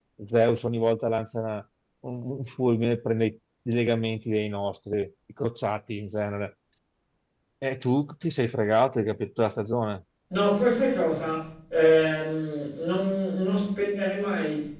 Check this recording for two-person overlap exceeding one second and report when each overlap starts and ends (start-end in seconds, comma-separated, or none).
none